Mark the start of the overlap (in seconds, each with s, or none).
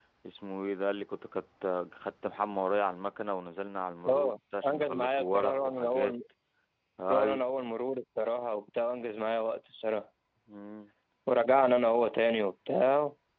4.1 s